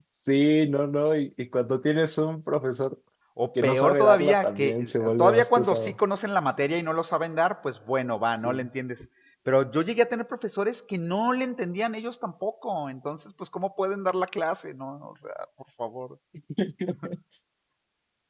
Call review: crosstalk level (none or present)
present